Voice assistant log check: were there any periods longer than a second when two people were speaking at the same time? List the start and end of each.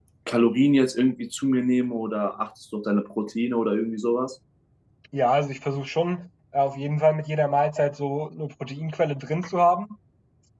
none

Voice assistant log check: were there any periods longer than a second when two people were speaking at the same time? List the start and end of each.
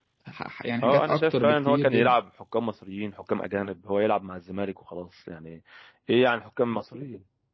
0.8-2.2

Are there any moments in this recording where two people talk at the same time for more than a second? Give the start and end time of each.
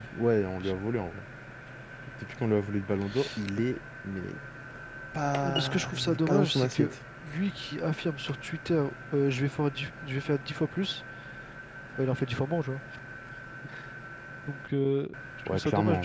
5.4-7.0

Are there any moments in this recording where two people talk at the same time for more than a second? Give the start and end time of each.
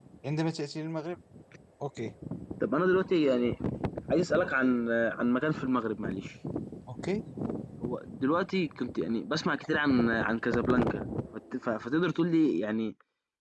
none

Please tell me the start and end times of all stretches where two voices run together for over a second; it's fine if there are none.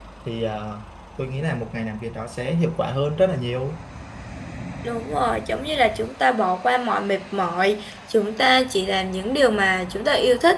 none

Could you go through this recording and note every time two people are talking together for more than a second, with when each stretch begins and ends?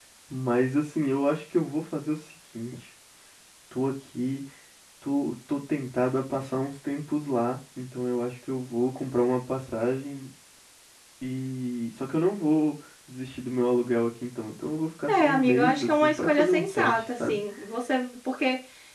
15.1-17.4

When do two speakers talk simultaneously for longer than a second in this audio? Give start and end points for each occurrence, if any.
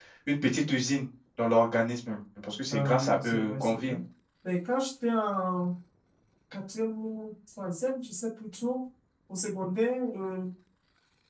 2.7-4.0

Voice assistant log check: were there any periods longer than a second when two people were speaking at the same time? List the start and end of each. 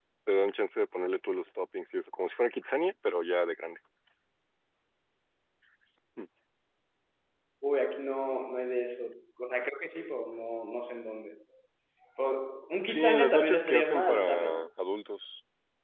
12.9-14.7

